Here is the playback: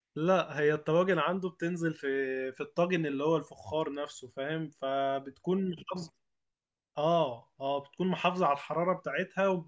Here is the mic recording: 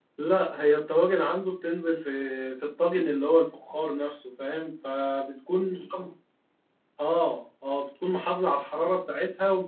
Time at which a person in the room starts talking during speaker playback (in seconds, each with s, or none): none